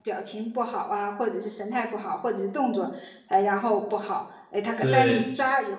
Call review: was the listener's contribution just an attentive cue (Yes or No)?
Yes